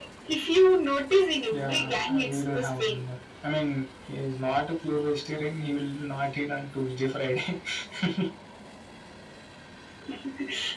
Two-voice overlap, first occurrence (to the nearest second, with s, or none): 2 s